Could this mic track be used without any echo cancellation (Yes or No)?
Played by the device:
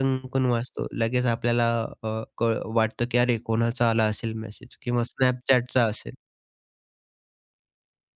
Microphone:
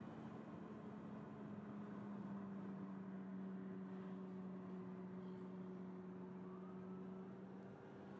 Yes